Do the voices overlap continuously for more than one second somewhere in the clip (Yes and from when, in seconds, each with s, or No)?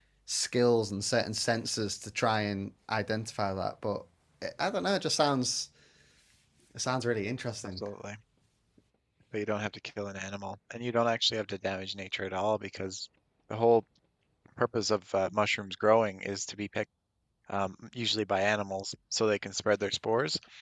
No